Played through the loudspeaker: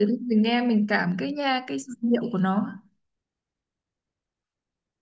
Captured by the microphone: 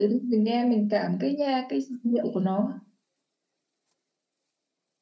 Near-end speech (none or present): none